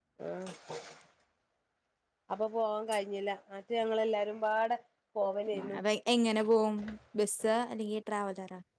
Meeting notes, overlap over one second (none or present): none